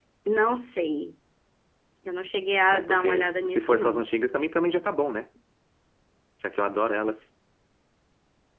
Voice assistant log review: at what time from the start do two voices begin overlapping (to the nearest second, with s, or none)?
3 s